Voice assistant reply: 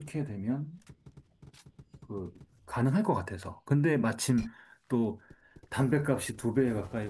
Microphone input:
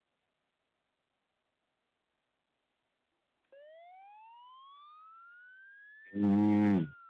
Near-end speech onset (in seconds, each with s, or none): 6.1 s